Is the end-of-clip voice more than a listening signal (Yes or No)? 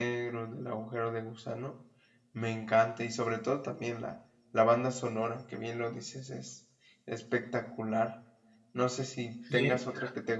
No